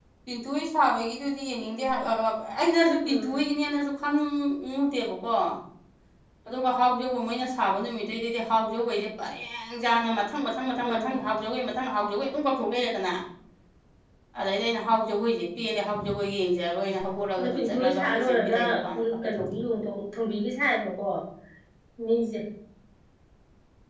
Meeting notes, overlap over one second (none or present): present